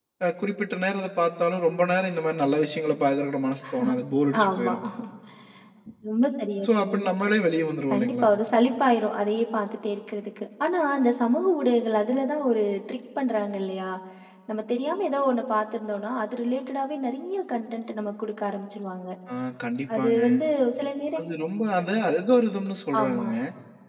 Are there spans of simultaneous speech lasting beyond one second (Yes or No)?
No